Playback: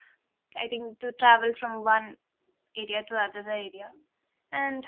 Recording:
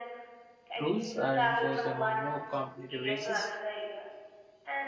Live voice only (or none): rules are enforced among more competitive races,